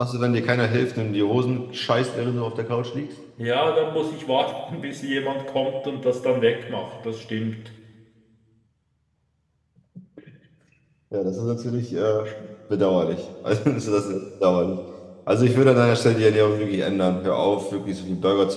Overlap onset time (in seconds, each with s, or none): none